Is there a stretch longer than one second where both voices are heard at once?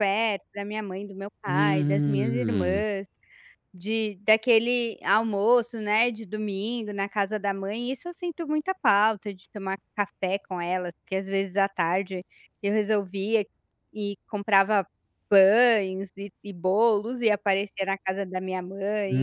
Yes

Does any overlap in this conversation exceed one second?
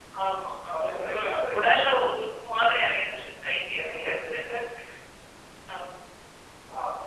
Yes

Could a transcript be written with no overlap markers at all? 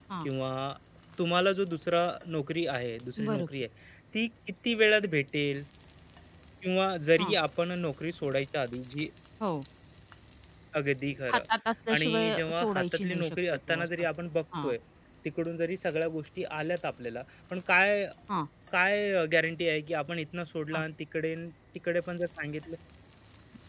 No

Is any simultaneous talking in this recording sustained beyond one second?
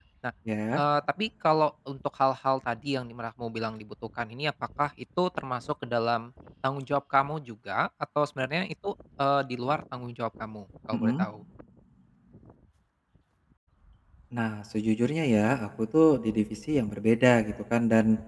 No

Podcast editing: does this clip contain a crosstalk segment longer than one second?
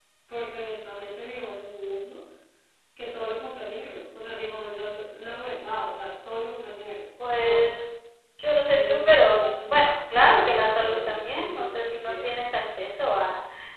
Yes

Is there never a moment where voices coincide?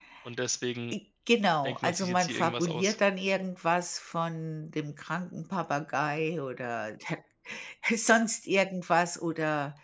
No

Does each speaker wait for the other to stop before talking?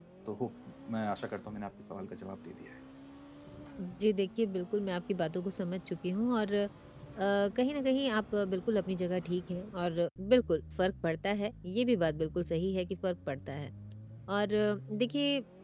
Yes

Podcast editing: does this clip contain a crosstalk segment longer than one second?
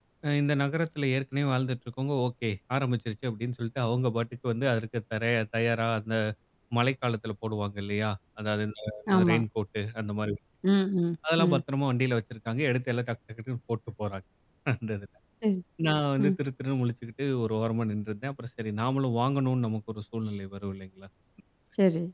No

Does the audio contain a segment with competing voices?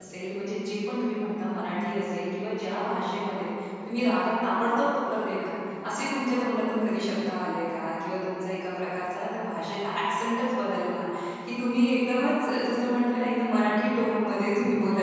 No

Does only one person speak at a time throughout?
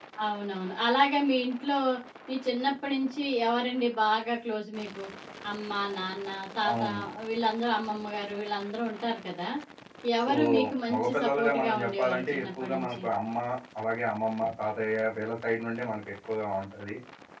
No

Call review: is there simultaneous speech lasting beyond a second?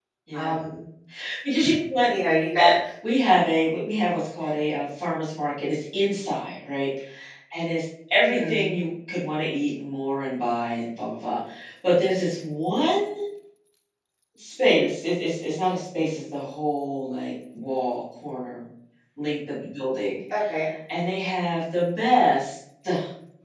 No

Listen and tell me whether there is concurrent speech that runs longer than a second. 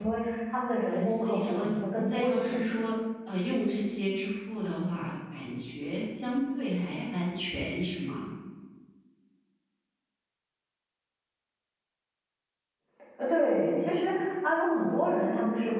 Yes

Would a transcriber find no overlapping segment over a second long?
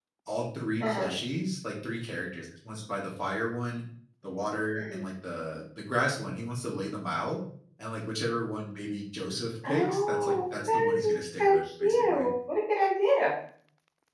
No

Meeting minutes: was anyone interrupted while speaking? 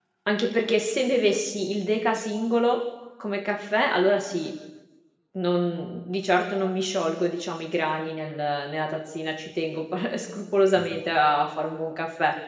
No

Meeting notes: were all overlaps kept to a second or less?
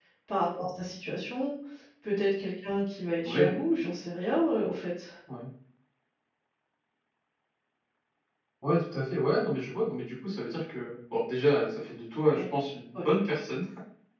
Yes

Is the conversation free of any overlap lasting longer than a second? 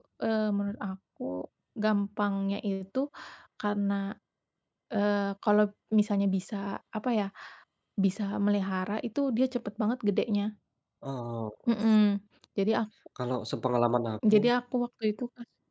Yes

